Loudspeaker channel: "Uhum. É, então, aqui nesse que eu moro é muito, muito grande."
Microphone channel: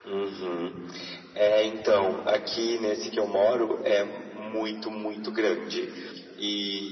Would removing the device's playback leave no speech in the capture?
Yes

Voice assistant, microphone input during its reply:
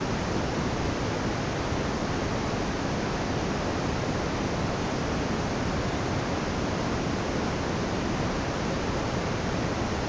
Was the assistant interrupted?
No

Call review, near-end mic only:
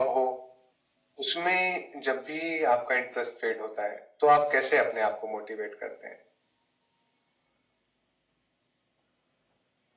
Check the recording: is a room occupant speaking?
No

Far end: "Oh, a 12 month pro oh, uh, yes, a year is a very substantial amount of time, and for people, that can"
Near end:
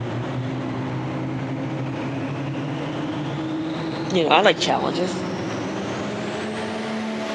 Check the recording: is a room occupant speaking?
Yes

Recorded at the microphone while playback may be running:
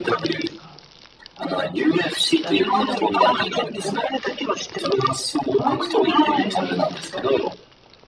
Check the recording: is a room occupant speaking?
Yes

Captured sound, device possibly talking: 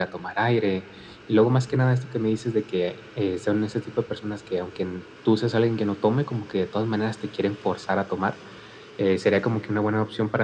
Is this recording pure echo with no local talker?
Yes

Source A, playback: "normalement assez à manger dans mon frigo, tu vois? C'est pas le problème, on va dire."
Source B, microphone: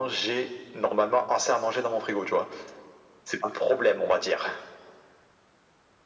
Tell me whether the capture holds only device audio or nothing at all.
Yes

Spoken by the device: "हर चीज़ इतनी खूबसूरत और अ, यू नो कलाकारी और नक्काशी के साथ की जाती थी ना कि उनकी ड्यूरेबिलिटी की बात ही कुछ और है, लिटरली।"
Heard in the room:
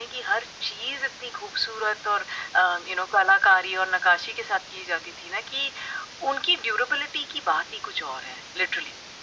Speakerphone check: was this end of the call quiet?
Yes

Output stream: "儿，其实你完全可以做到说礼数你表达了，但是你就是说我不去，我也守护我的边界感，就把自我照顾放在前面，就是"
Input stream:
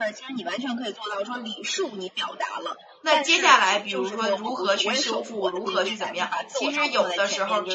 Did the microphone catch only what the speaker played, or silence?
No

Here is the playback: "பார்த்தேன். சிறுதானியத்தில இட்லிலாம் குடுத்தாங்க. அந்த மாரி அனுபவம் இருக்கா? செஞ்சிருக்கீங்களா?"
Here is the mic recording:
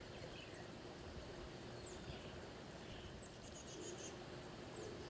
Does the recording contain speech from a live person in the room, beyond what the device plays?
No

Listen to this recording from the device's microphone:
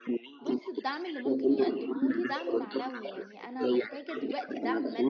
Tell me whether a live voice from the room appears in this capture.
Yes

